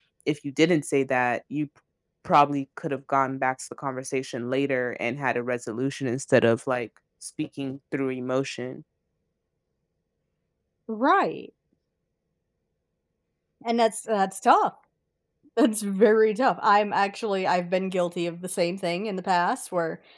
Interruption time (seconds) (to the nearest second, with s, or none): none